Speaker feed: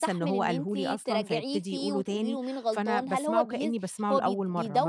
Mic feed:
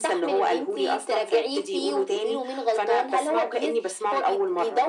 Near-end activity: none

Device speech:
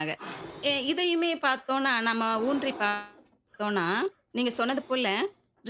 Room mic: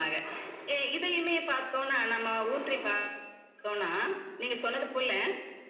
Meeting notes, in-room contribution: none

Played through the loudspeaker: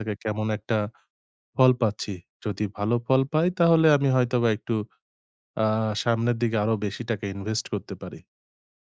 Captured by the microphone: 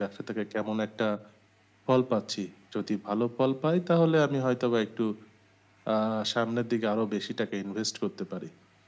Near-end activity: none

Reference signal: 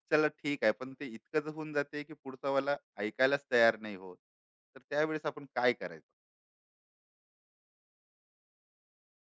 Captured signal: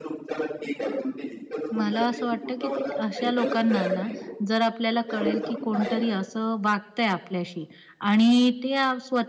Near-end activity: present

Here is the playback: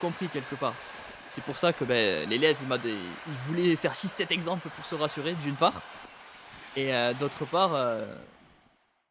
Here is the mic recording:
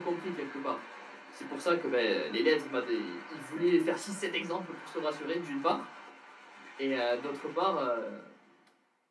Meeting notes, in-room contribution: none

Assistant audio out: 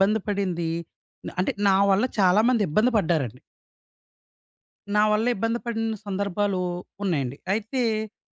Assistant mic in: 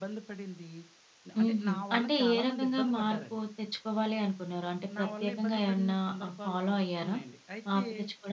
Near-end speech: present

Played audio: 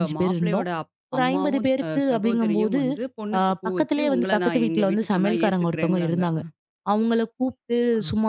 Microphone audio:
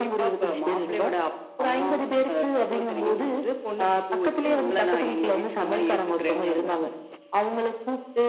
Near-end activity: none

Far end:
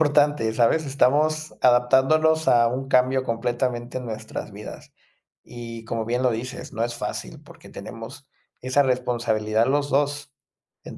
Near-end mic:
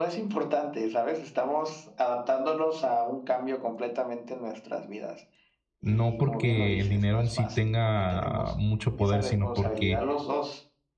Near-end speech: present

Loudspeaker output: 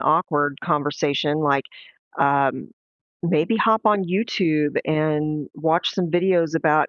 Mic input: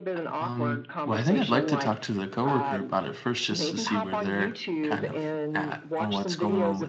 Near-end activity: present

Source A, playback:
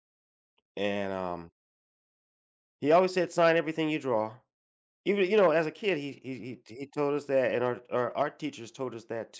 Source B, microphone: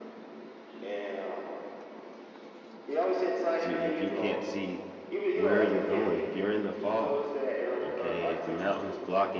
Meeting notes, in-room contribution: present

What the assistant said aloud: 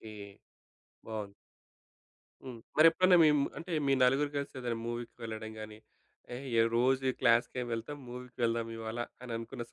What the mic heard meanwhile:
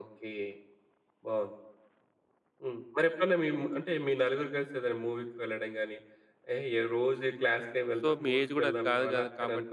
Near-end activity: present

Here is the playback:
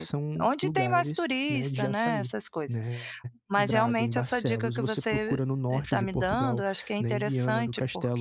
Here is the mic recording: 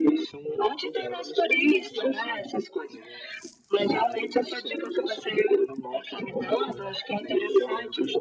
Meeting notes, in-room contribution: none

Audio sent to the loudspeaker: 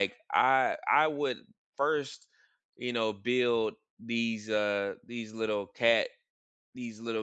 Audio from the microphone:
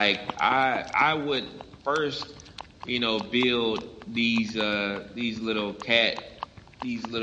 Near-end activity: none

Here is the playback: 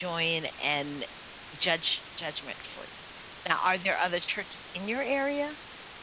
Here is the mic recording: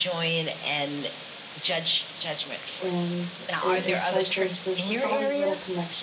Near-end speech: present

